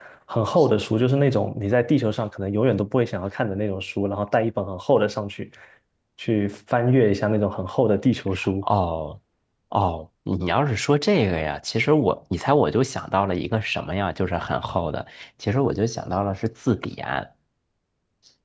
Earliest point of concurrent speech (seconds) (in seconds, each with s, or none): none